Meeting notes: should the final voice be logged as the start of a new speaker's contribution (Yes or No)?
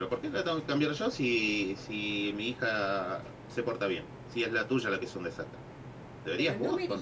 Yes